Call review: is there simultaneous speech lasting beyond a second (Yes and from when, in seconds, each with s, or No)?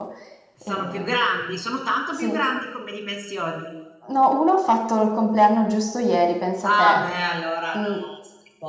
No